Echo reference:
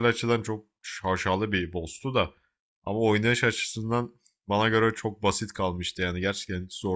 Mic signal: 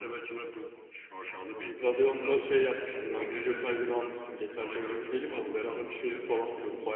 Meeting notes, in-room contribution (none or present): present